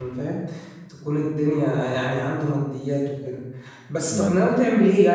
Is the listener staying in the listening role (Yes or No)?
Yes